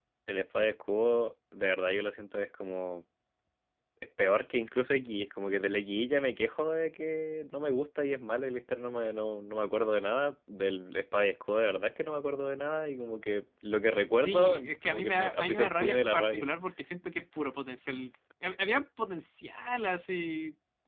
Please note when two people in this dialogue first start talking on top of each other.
14.2 s

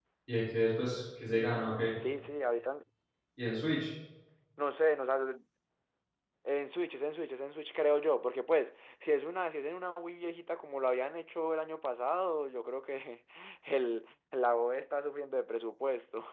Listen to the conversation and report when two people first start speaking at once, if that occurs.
none

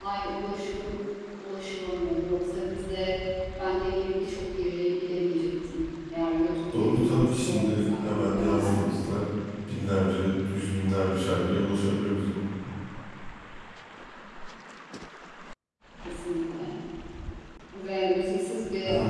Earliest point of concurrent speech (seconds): 6.7 s

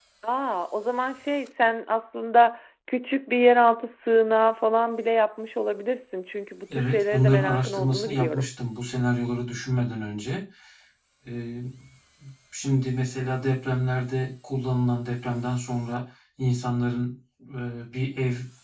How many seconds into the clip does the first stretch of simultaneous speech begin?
6.7 s

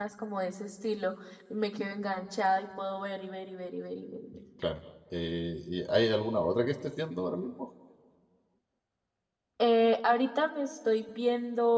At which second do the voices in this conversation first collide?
none

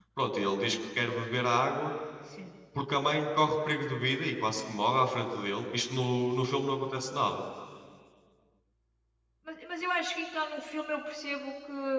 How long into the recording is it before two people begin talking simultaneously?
none

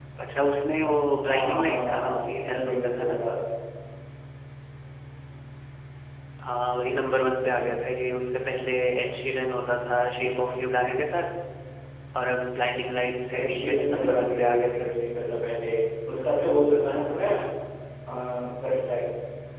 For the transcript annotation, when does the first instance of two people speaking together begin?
1.3 s

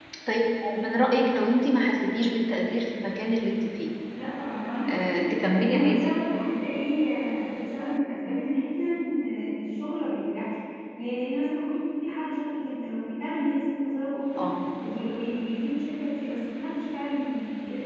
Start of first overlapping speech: 4.9 s

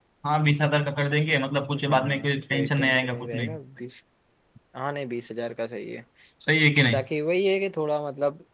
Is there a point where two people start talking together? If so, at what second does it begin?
1.7 s

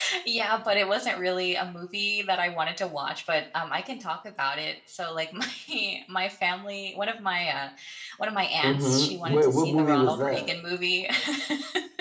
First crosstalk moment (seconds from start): 8.6 s

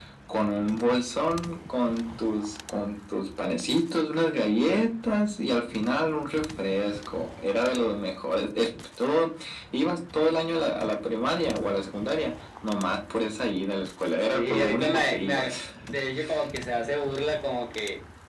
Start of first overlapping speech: 14.3 s

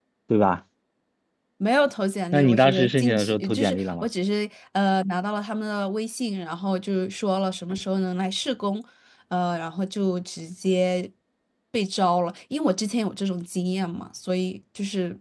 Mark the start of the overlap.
2.3 s

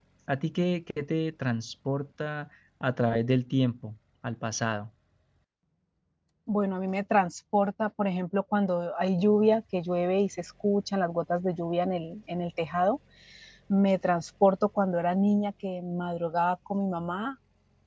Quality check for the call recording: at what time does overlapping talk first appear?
none

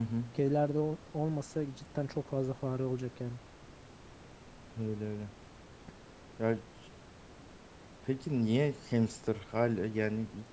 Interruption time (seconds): none

